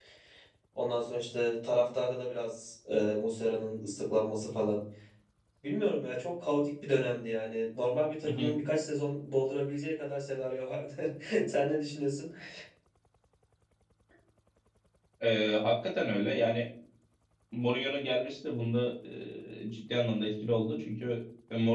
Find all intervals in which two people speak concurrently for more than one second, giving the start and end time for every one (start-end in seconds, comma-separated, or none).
none